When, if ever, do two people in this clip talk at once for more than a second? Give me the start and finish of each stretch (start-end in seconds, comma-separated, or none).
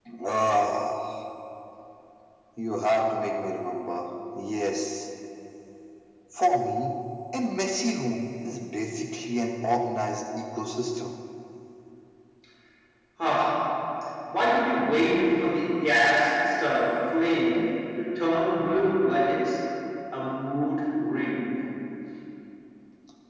none